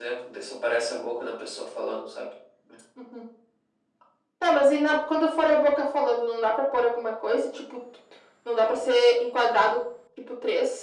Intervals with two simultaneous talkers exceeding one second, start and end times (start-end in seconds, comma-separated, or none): none